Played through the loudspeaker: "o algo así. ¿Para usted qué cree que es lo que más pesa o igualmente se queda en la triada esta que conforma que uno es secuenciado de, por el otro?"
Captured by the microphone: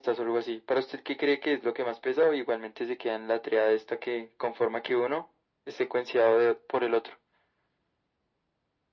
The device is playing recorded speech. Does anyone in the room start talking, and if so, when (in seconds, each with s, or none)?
none